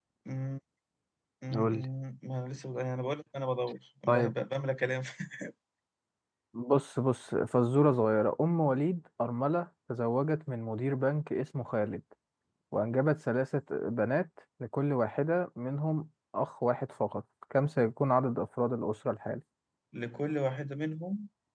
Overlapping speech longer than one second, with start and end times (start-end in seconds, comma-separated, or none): none